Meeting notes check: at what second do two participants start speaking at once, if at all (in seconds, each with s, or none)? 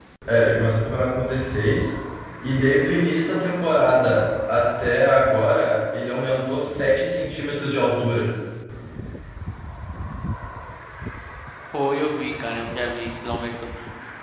none